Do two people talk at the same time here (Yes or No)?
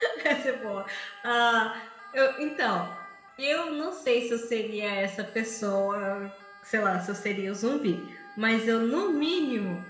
No